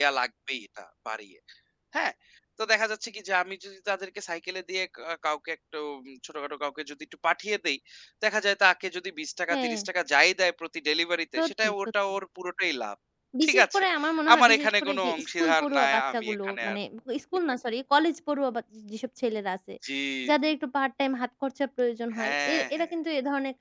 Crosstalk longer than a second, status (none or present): present